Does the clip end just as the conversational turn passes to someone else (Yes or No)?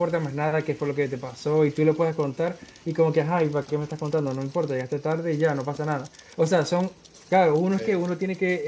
No